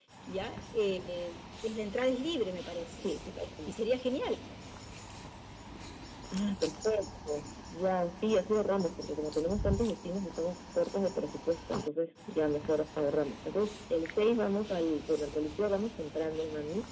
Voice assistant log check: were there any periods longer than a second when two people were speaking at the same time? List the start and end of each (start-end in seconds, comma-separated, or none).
none